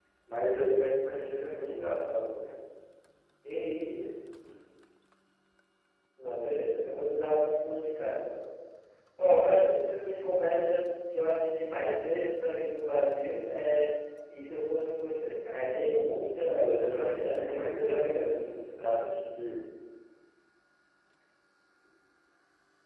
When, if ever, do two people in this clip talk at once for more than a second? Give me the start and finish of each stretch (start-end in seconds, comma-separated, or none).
16.5-18.4